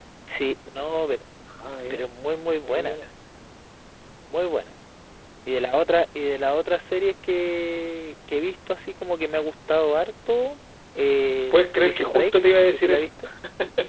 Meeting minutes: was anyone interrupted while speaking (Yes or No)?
Yes